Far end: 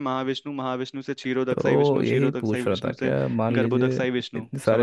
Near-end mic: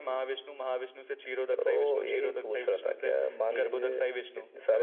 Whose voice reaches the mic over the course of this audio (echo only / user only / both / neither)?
echo only